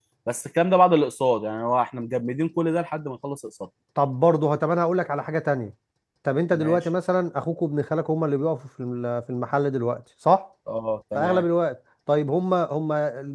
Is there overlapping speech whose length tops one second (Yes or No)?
No